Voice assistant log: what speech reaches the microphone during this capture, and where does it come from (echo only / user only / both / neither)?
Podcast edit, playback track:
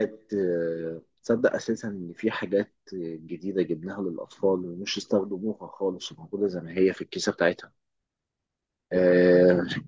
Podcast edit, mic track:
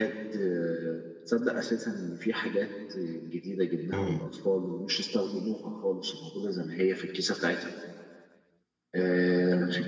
both